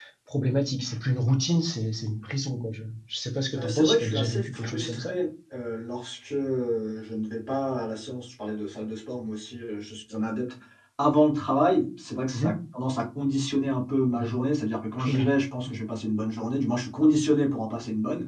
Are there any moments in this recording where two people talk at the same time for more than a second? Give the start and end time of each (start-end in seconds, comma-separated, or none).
3.6-5.2